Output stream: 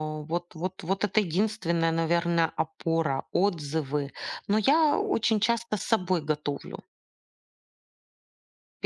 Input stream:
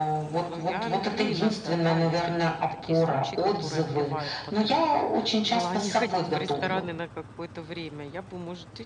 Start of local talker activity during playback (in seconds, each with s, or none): 0.4 s